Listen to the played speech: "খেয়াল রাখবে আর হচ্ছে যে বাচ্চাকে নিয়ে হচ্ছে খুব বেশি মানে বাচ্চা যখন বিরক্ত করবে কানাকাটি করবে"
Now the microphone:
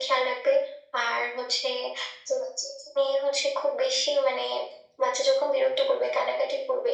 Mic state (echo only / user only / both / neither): echo only